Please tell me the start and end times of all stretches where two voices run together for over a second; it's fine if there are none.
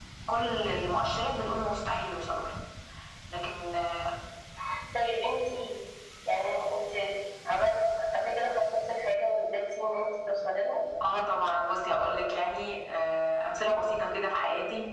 none

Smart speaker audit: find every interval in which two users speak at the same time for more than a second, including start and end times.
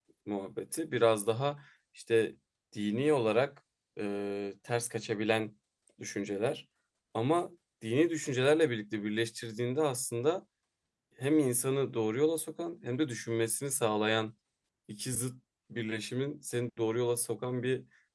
none

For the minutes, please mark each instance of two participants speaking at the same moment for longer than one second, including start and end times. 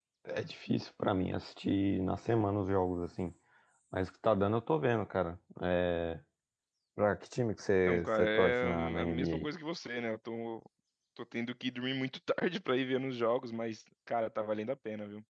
7.9-9.5

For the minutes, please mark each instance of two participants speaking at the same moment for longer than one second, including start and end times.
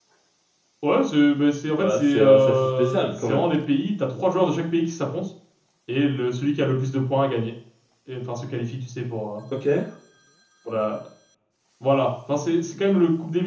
1.8-3.5

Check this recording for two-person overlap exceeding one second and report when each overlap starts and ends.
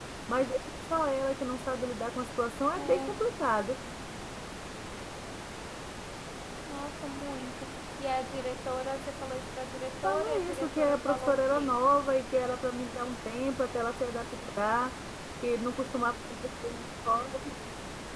10.0-11.8

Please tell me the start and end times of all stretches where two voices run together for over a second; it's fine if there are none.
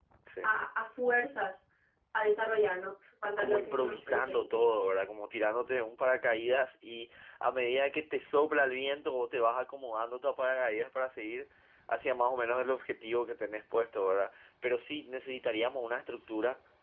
3.4-4.6

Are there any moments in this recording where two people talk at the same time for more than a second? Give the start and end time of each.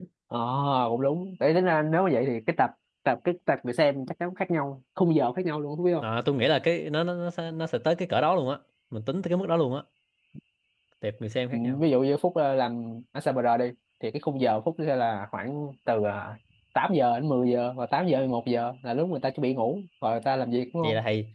none

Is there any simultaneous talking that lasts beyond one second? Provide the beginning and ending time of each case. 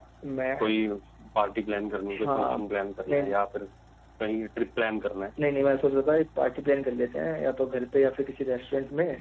none

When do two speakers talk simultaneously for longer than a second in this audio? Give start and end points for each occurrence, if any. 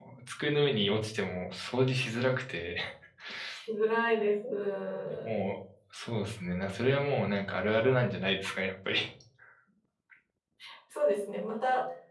none

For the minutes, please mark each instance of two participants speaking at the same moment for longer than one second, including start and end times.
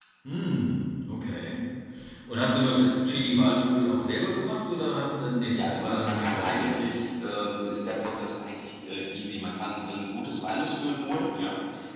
5.5-6.8

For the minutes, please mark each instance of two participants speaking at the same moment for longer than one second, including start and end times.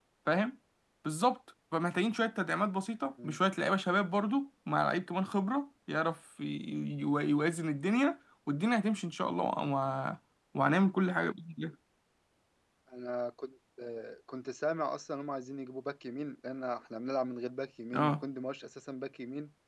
none

